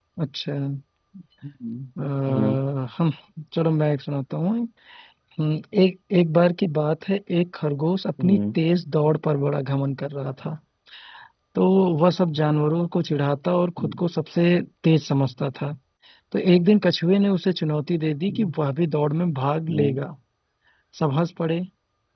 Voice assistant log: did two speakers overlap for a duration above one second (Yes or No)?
No